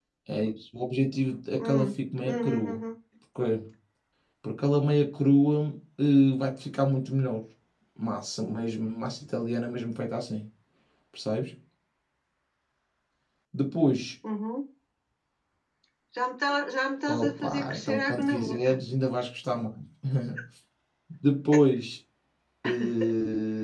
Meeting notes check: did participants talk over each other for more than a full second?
Yes, from 1.6 s

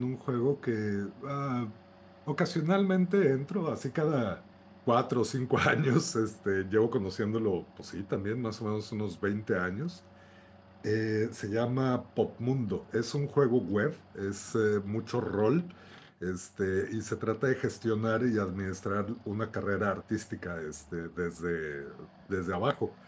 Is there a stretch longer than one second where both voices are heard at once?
No

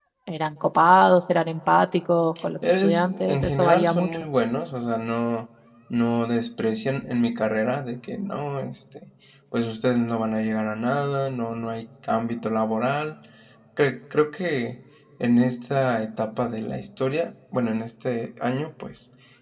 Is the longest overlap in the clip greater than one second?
Yes, from 2.6 s

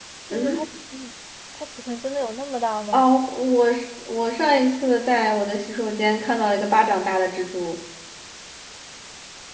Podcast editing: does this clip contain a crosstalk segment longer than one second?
No

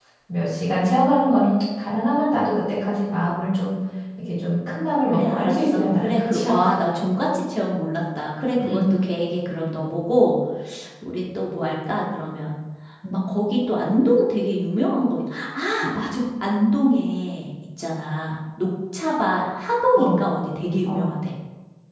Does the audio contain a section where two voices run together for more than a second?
Yes, from 5.1 s

